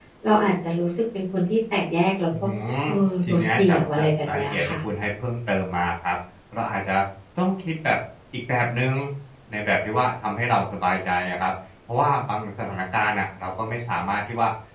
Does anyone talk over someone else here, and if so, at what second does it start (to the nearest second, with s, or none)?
3 s